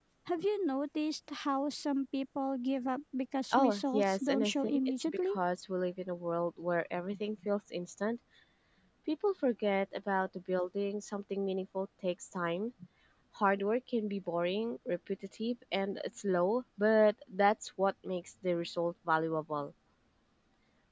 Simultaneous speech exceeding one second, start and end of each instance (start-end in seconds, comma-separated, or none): 3.5-5.3